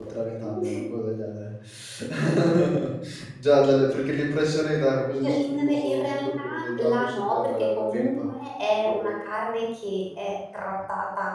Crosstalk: present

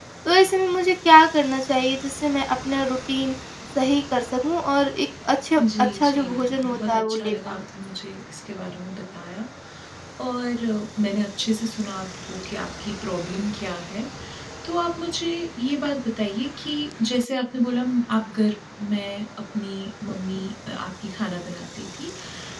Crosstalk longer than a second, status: present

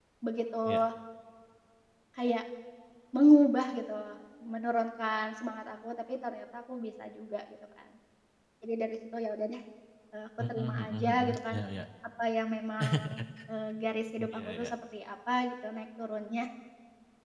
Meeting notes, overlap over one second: present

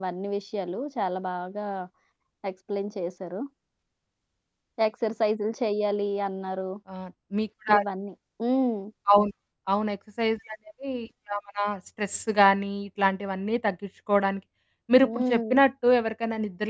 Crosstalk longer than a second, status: none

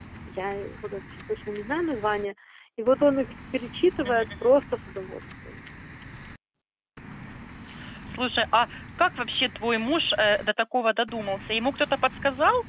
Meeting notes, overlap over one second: none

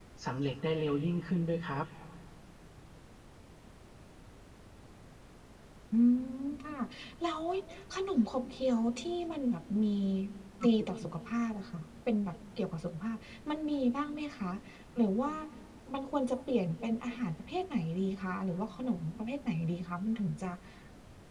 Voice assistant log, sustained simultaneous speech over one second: none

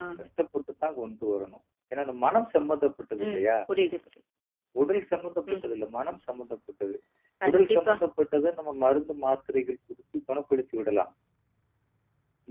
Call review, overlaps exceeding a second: none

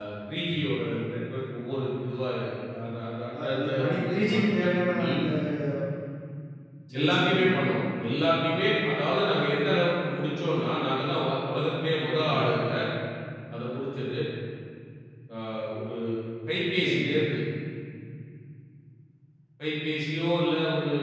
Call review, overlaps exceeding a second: present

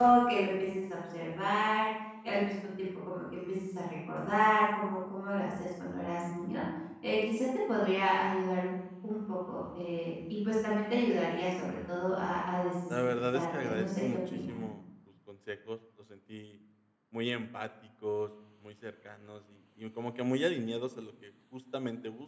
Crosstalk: present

